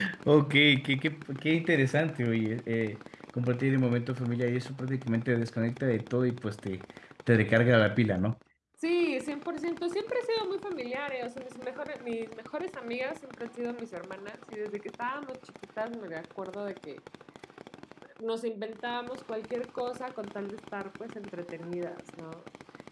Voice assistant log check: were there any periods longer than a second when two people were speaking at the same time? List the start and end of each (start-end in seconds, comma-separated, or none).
none